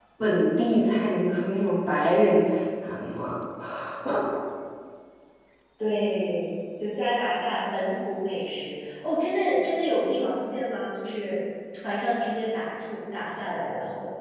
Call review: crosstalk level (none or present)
none